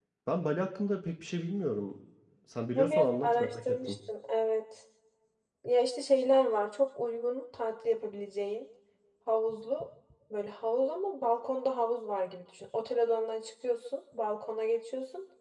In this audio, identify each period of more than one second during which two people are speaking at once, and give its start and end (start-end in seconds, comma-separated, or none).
2.8-4.0